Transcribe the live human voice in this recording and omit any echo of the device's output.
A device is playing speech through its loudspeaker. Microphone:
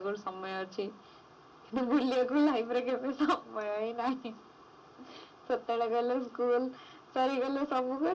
none

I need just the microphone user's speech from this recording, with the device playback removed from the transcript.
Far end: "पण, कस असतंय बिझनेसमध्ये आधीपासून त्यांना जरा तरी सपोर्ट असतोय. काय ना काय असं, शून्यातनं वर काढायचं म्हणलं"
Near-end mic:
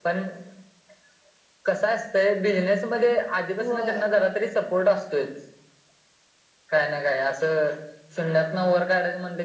होय

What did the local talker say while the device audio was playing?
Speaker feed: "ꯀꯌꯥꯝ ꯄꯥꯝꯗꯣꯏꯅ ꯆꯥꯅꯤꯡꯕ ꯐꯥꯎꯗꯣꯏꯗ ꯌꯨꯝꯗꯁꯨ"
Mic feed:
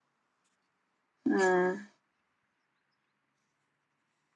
ꯎꯝ

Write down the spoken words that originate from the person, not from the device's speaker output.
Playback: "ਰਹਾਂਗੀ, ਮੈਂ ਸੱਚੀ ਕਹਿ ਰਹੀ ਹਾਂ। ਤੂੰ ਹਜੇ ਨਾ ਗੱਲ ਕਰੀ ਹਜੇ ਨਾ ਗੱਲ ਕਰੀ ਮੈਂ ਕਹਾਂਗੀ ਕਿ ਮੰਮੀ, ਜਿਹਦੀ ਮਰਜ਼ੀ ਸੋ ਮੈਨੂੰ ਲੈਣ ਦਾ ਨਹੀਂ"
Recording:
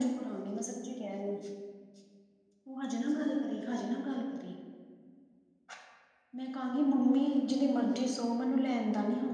none

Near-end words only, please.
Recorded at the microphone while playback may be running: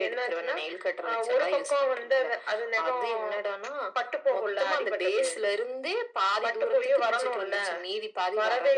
none

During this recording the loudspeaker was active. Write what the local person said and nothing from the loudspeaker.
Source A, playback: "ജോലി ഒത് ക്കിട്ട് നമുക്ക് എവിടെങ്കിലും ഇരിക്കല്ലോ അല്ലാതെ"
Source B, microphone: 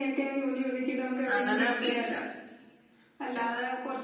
അങ്ങനെ പിന്നെ

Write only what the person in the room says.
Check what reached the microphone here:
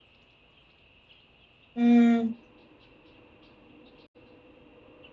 ਹੂੰ।

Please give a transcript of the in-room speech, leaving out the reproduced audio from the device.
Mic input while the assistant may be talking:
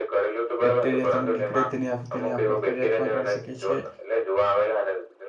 બેક્ટરીયા ત નીકળે તેની તેની આપણે ફરિયાદ પણ કરી શકીએ છએ

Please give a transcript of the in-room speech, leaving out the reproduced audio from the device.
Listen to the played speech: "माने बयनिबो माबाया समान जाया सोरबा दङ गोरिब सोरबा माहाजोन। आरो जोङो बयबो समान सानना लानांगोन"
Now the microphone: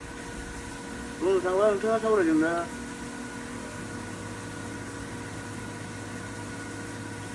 बुंनो थाङोबा नोंथाङा सावरायदों दा

